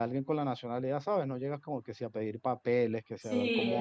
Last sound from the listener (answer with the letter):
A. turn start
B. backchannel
A